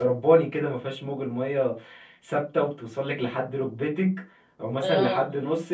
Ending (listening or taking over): listening